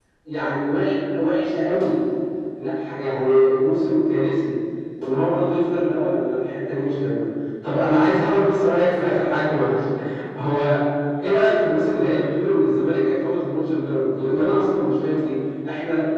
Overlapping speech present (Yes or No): No